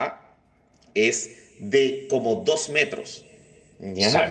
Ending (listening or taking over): taking over